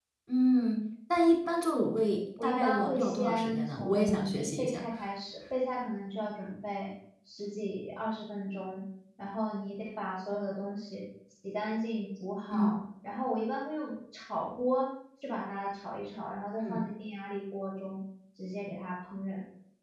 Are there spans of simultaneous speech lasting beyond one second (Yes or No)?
Yes